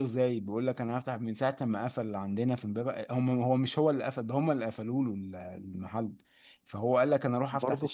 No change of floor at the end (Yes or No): Yes